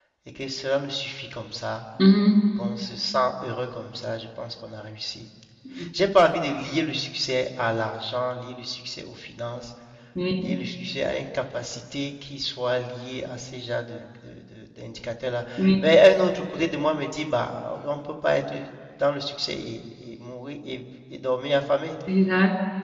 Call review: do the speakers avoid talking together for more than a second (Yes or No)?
Yes